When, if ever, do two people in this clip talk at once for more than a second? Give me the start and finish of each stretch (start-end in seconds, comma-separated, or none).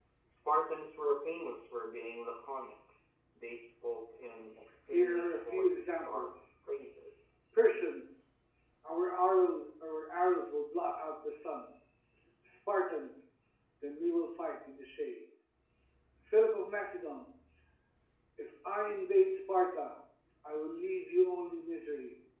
4.9-6.3